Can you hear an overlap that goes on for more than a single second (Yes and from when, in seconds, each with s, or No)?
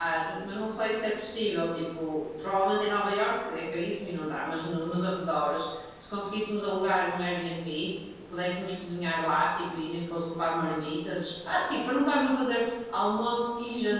No